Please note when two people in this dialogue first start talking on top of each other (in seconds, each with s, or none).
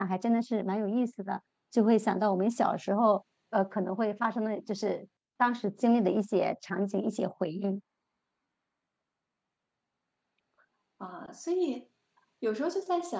none